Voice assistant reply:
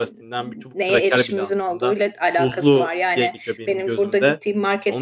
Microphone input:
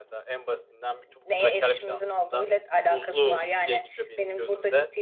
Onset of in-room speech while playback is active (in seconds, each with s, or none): none